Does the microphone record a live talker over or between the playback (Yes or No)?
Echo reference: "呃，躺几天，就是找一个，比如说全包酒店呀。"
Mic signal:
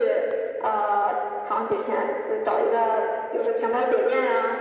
No